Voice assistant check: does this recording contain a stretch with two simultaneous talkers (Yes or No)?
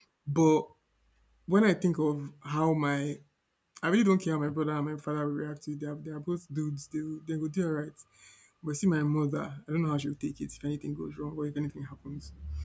No